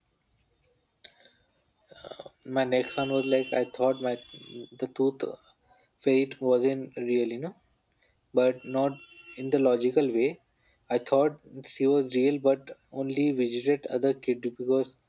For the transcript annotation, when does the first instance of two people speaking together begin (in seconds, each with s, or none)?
none